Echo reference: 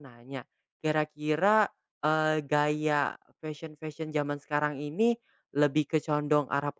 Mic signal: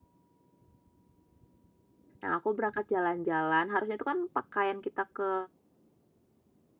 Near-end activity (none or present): present